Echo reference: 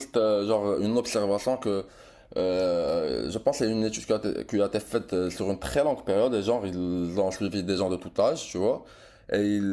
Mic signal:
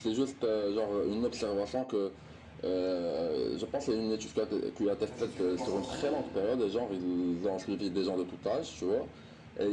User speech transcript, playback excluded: même si tu veux t'en sortir,

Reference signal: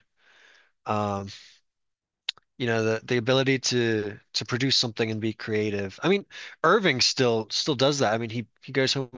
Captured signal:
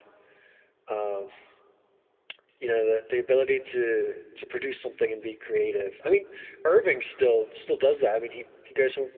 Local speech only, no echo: none

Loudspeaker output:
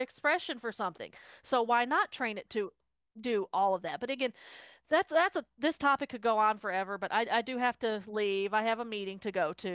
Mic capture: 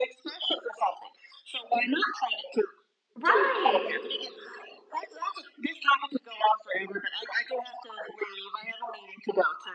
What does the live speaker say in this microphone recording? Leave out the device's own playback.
Right,

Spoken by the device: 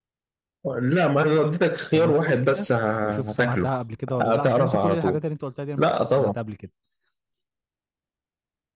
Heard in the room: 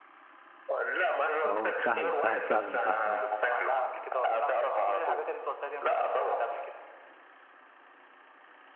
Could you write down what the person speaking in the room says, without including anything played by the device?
اهو سهلة سهلة فعلا سهلة اه

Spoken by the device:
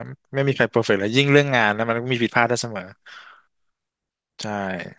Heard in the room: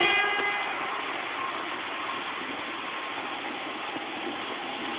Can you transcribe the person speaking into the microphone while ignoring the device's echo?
none

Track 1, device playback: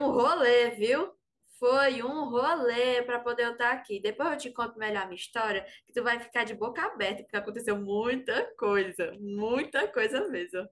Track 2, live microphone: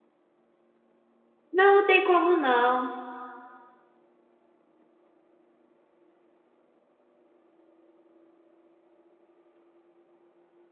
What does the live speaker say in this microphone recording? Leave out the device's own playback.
Não, não tem como não.

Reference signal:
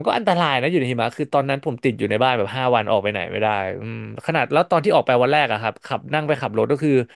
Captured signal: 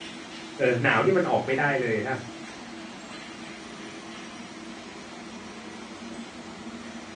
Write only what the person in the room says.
เออหนาวนี่มันออกไม่ได้เลยฮะ

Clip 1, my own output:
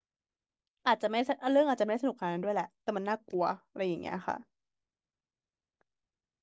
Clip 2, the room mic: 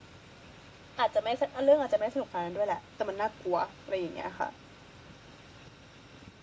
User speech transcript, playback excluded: none

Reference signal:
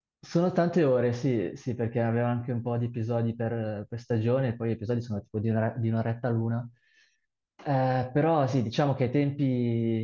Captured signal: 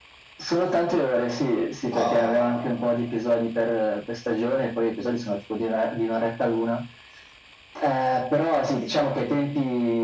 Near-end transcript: Ah,

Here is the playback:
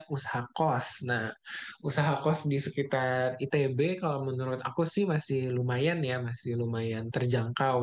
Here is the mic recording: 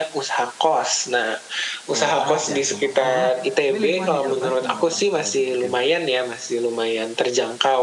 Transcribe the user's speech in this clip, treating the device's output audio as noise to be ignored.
Jawa Barat ya, nggak masalah lah. Tapi lingkungan di Jawa Barat gimana Bang? Kalau di ITB

